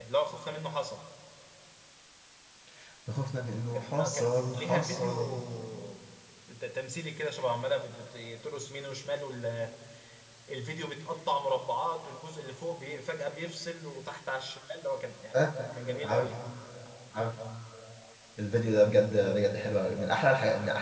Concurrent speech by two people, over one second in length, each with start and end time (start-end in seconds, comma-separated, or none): 3.7-5.4